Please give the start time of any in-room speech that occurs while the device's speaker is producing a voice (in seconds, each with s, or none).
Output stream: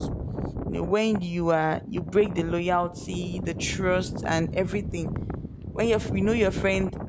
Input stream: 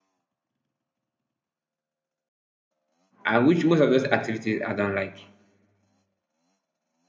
3.2 s